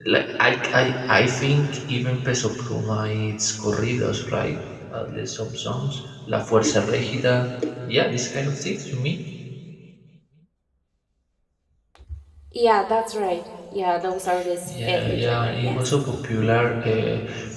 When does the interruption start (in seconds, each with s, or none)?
14.6 s